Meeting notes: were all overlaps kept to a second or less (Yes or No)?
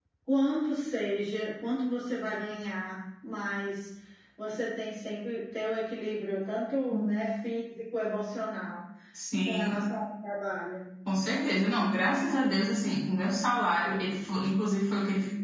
Yes